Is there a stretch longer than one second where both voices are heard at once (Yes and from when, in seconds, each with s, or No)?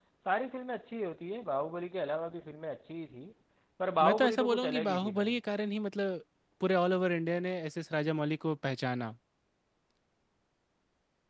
Yes, from 4.0 s